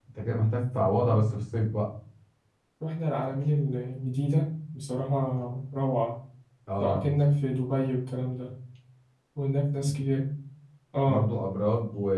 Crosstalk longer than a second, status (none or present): none